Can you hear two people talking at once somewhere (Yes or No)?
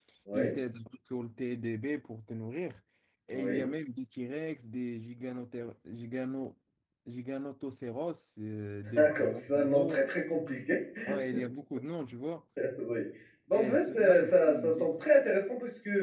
Yes